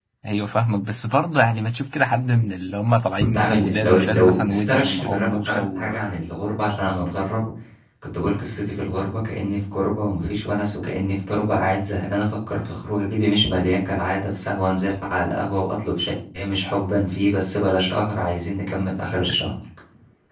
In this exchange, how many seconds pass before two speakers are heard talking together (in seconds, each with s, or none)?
3.3 s